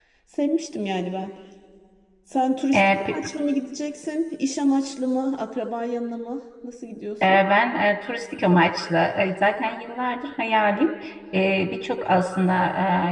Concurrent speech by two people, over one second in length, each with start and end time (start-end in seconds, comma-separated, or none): none